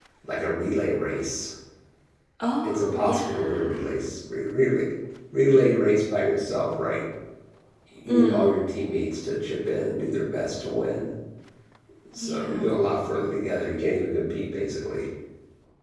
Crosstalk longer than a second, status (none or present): present